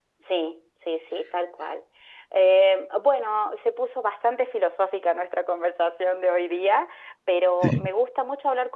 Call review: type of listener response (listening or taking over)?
listening